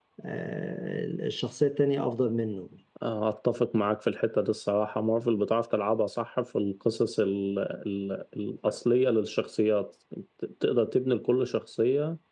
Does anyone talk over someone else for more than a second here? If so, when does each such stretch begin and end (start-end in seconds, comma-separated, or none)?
none